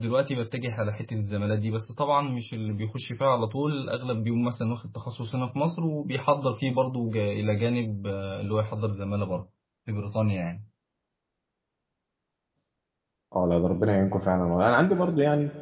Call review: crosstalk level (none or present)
none